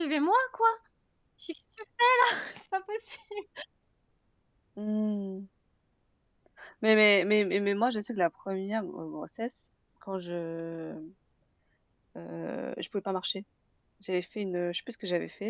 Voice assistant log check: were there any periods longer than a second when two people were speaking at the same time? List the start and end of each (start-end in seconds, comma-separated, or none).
none